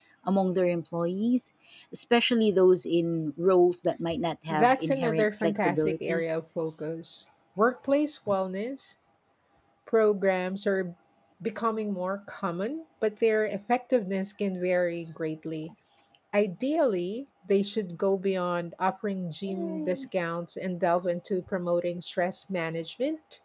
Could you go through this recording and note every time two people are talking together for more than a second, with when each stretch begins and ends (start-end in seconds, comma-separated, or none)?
4.5-6.2